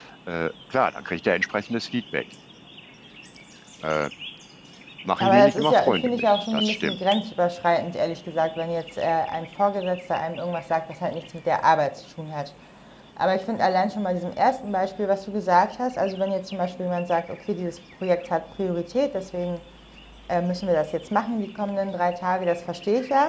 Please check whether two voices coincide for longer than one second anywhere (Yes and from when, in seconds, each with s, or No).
Yes, from 5.2 s